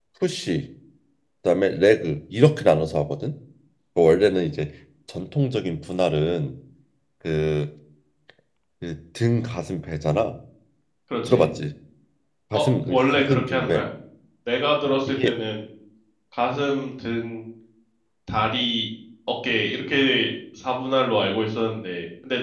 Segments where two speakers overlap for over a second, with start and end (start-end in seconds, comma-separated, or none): 12.5-13.8